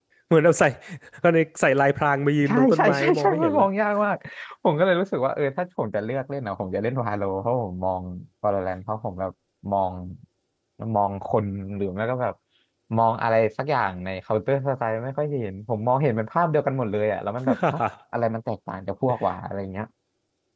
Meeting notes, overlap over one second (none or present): present